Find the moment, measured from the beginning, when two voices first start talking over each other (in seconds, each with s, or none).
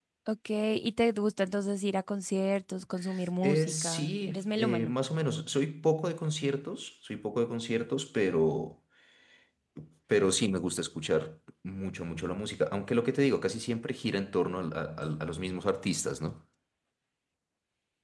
3.4 s